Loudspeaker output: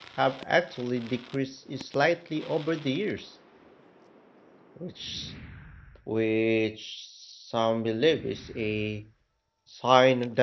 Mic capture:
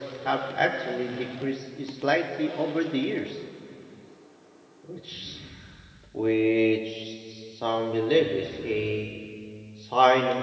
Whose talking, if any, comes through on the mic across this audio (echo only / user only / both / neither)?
echo only